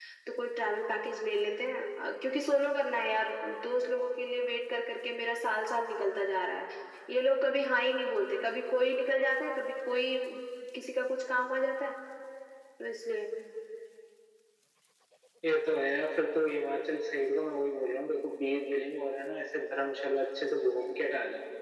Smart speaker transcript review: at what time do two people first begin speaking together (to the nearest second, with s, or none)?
none